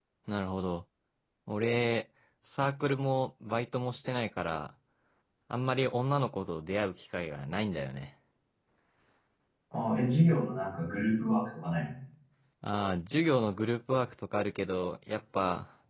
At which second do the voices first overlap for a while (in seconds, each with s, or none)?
none